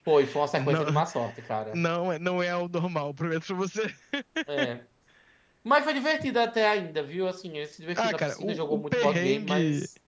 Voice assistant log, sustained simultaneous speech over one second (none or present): present